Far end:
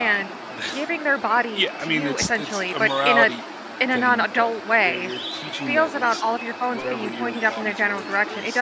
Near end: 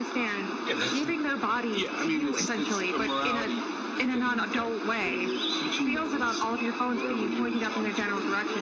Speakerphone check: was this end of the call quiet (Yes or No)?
No